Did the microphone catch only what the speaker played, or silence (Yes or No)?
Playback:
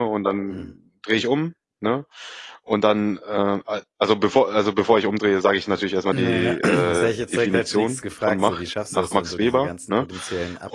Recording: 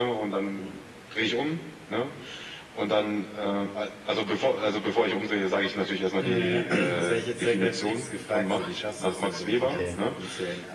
No